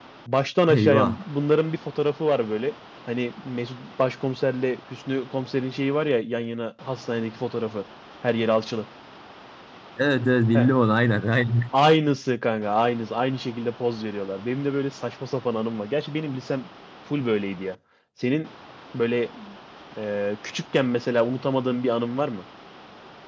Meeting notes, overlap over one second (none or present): none